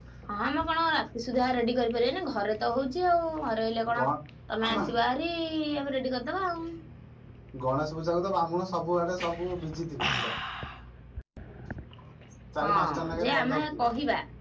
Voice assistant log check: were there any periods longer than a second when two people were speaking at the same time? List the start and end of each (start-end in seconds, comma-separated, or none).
12.6-13.8